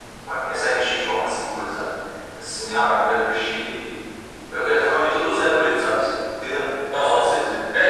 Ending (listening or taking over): taking over